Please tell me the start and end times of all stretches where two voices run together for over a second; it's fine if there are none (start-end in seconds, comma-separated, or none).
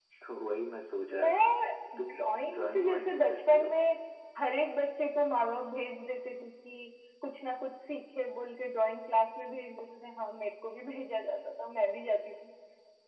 2.5-3.7